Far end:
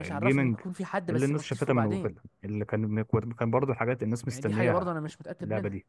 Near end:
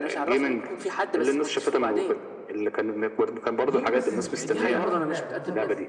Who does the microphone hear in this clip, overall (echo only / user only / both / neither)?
both